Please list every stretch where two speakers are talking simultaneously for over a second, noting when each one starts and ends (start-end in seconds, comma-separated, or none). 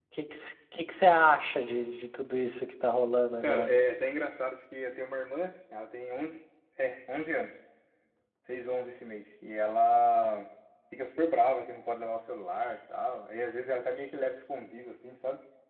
none